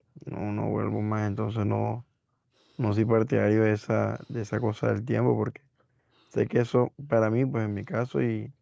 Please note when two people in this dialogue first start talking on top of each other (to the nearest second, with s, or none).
none